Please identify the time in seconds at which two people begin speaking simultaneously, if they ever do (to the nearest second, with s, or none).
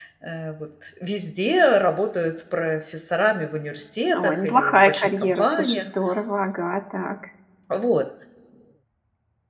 4 s